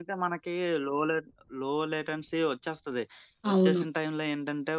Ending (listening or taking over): listening